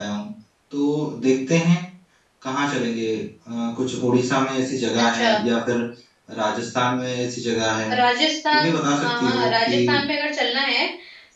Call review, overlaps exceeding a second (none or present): present